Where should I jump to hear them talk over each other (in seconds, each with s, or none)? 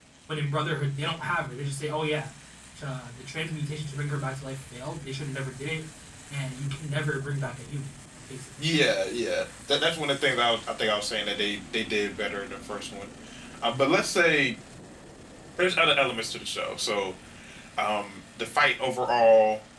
none